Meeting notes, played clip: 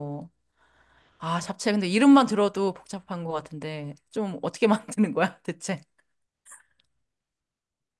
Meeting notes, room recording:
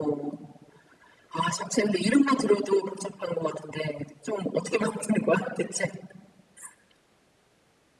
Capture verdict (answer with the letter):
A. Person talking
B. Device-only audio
B